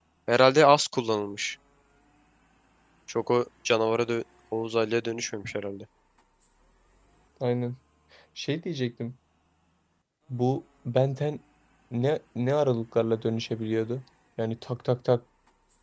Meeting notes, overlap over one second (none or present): none